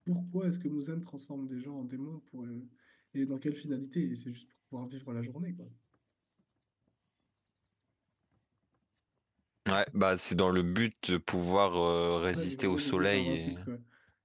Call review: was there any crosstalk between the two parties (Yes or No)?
Yes